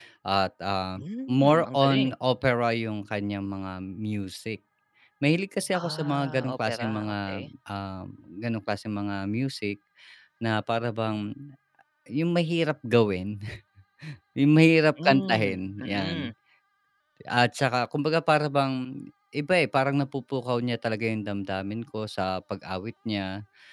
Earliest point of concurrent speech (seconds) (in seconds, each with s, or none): 0.9 s